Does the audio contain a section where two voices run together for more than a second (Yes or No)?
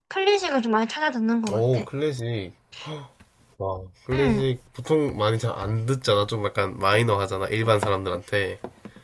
No